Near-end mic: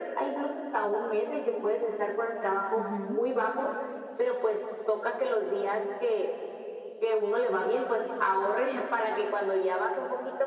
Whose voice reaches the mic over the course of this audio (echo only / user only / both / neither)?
both